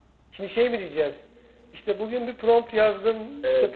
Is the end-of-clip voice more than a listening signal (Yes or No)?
No